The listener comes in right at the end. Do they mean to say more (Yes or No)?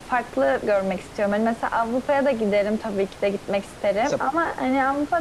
No